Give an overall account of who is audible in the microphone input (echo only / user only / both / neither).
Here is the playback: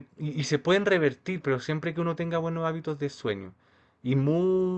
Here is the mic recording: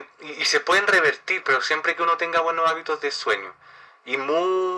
echo only